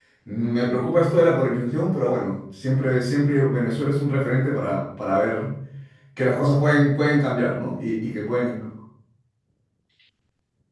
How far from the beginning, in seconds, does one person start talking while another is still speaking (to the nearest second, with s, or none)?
none